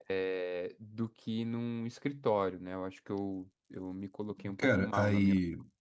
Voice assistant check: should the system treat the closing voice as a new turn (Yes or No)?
Yes